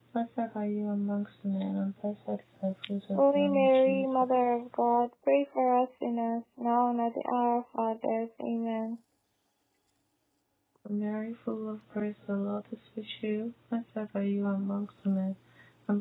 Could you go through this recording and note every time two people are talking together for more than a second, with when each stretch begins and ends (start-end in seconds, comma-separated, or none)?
3.2-4.4